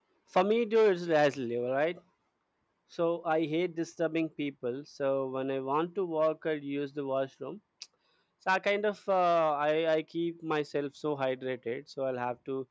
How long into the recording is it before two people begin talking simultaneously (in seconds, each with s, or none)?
none